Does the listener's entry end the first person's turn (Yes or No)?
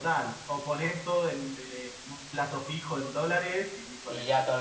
Yes